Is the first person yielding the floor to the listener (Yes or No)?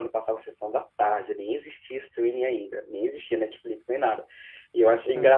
No